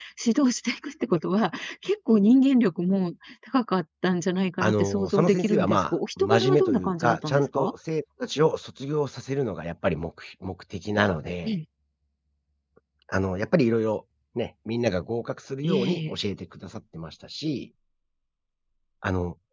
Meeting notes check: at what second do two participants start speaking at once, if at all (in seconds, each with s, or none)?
4.6 s